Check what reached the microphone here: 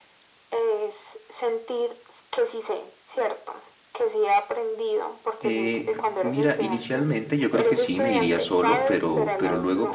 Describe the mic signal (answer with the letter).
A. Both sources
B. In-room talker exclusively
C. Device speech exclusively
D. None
A